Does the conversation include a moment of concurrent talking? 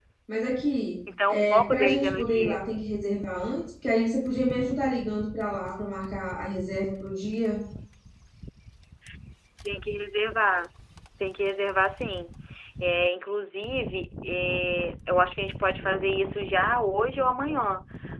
Yes, from 1.3 s

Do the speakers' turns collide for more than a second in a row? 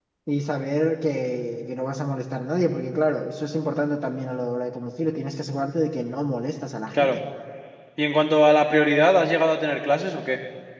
No

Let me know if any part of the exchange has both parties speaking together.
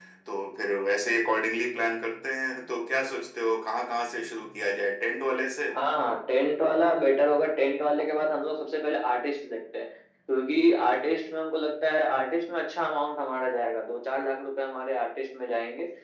No

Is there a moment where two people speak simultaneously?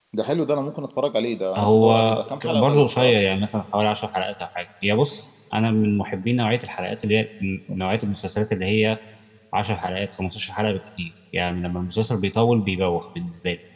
Yes, from 1.5 s

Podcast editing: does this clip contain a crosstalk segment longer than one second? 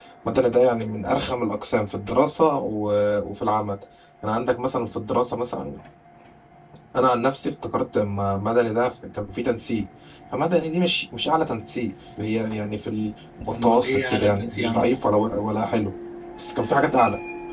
Yes, from 13.5 s

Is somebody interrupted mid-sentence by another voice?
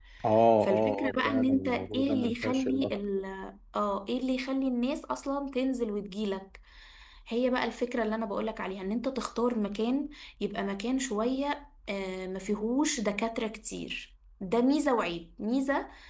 Yes, from 0.6 s

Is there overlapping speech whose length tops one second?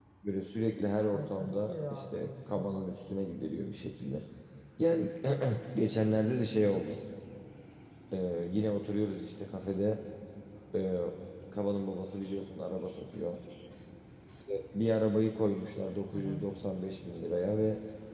Yes, from 1.1 s

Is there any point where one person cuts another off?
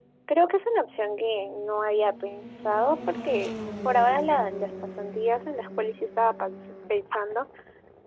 No

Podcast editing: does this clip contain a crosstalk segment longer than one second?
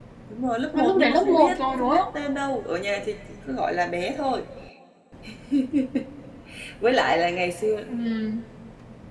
Yes, from 0.7 s

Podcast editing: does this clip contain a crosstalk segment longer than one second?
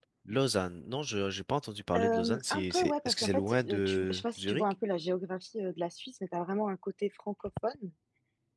Yes, from 1.9 s

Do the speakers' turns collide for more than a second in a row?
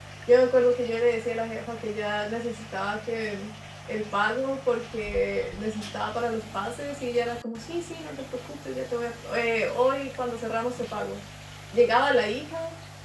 No

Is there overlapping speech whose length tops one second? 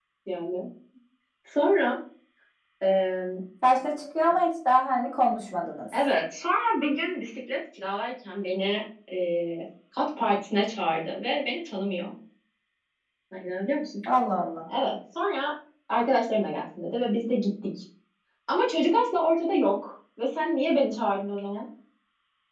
No

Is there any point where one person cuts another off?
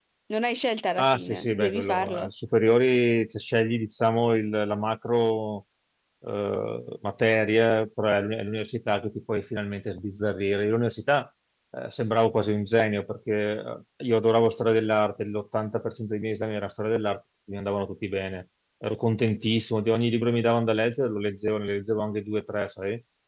Yes, from 1.0 s

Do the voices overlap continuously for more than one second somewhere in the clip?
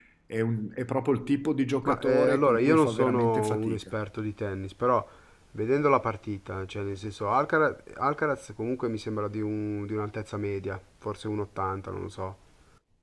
Yes, from 1.8 s

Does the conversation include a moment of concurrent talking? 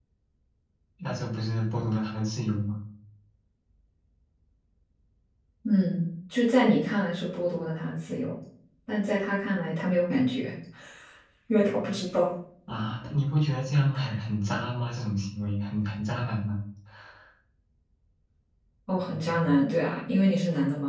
No

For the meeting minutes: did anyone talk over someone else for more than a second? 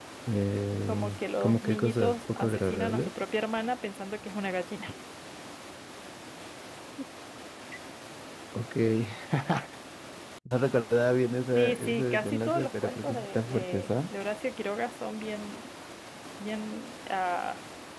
Yes, from 0.9 s

